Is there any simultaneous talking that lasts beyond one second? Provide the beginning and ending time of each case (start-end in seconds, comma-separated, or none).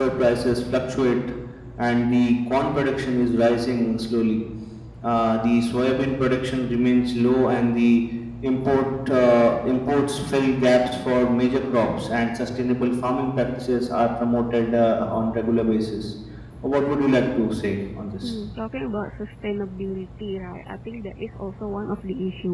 none